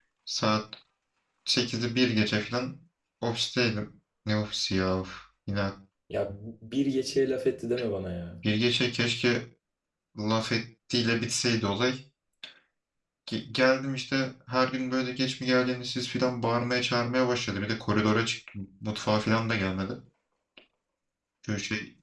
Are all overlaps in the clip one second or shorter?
Yes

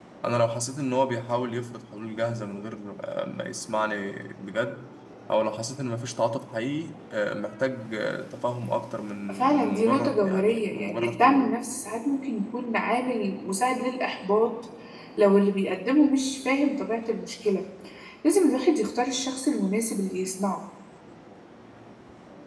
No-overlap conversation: No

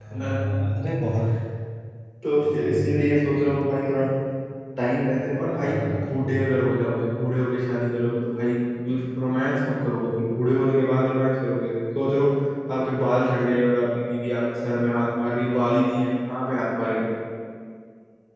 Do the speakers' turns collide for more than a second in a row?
Yes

